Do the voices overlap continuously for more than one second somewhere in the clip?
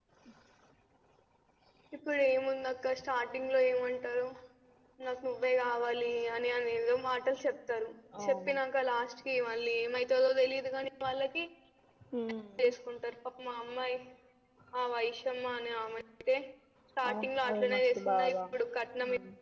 Yes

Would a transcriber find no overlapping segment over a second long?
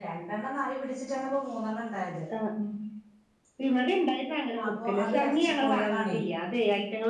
No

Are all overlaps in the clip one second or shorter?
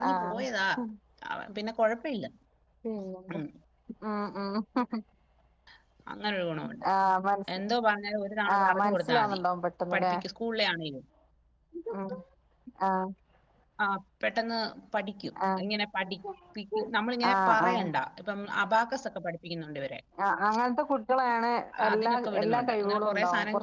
No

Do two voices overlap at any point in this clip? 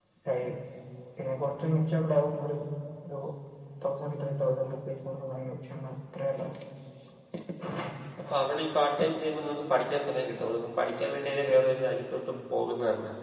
No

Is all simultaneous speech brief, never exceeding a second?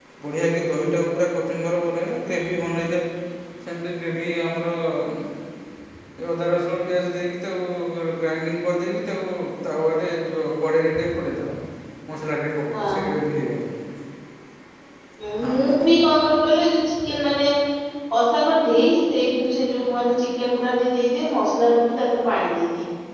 Yes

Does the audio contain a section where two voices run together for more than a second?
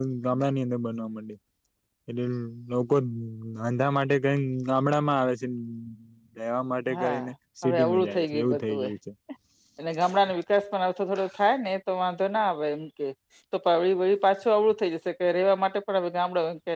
Yes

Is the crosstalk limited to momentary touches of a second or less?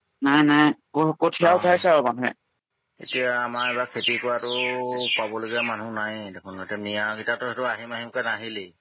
Yes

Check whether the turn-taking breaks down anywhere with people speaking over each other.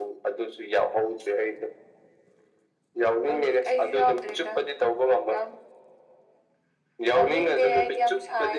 Yes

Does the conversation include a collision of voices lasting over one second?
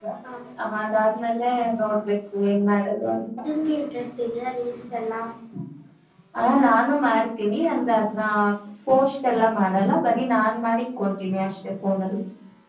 No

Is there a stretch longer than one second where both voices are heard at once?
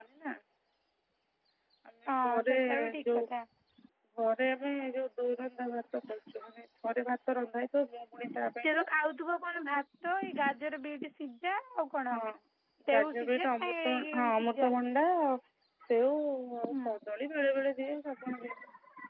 Yes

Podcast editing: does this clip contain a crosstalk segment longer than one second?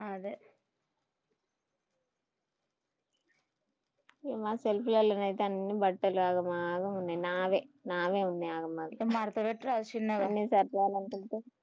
No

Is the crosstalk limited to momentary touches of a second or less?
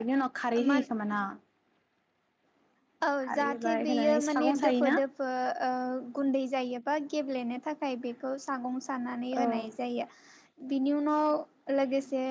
No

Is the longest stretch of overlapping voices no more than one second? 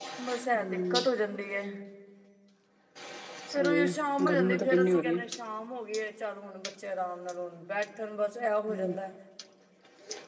No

